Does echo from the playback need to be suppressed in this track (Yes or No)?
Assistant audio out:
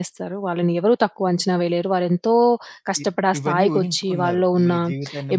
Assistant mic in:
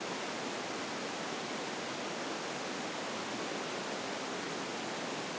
No